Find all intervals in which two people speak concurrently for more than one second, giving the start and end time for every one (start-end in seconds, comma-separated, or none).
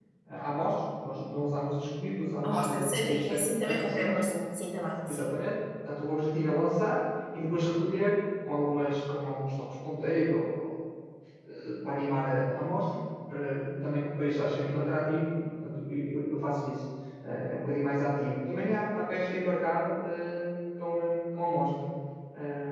2.4-4.2